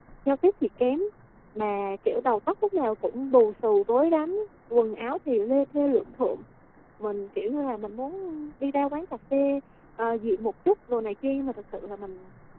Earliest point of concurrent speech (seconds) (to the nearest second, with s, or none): none